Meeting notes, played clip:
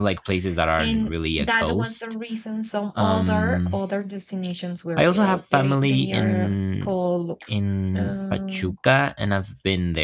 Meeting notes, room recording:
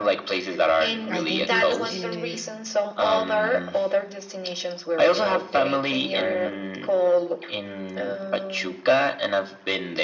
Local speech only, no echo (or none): i think it's it,